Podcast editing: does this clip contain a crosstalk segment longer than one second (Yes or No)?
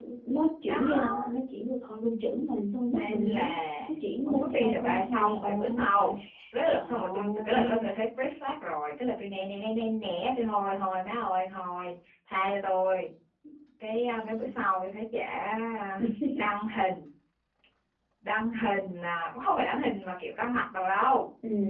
Yes